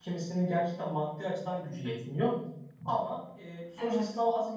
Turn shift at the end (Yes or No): No